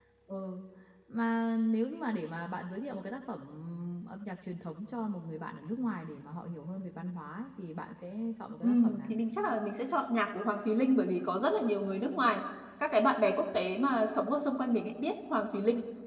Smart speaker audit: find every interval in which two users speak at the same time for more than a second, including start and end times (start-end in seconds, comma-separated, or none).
none